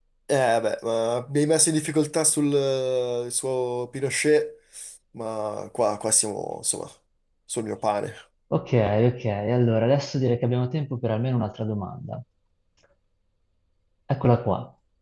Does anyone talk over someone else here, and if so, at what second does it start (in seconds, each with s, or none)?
none